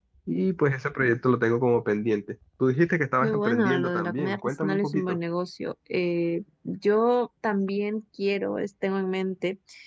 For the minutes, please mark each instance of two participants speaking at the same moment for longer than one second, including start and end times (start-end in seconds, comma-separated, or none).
3.2-5.2